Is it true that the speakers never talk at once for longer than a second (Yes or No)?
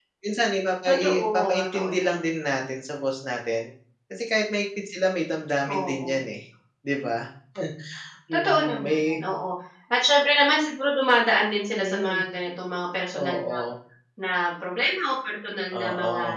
No